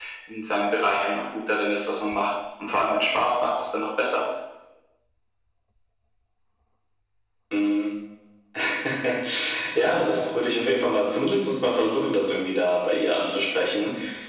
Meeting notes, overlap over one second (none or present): none